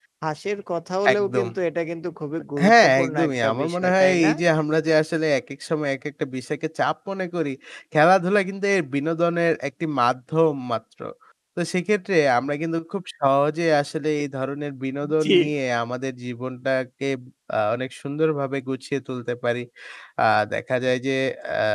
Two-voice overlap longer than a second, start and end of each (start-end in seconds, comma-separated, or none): 2.6-4.3